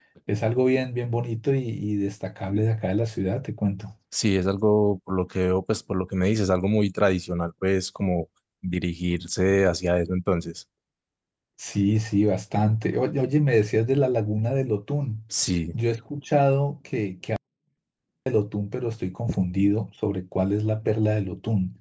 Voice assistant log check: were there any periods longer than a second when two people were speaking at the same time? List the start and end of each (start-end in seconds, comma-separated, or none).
none